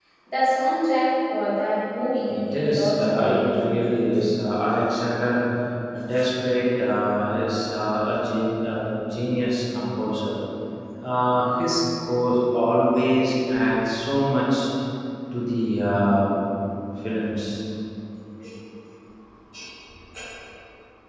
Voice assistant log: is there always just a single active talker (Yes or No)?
No